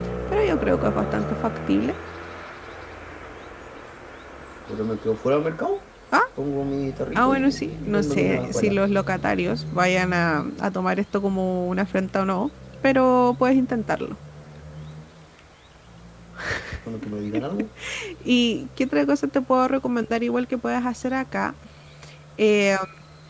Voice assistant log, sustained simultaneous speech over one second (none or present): present